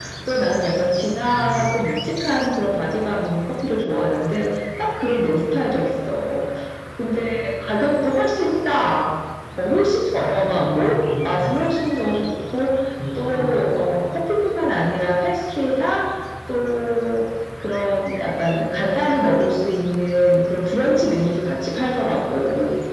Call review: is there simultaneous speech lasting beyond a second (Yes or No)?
Yes